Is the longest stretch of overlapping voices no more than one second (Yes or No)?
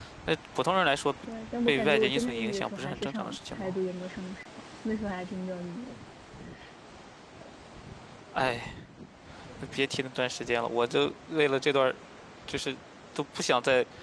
No